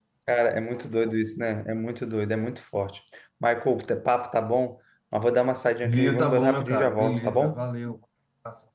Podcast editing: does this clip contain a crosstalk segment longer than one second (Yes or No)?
Yes